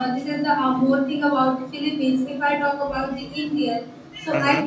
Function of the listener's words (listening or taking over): listening